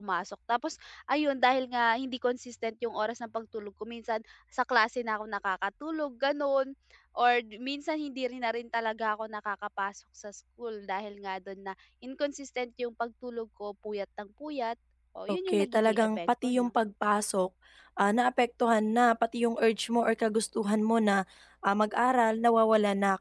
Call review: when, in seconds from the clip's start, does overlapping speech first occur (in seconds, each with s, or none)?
15.3 s